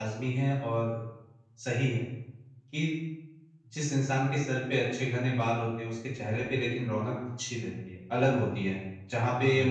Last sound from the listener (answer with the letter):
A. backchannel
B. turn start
A